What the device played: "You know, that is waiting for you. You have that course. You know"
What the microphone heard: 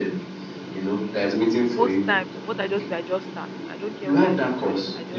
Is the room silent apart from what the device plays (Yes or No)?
No